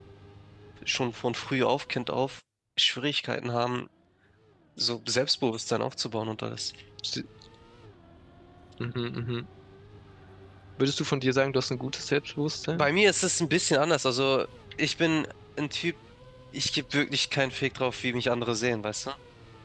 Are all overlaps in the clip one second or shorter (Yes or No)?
Yes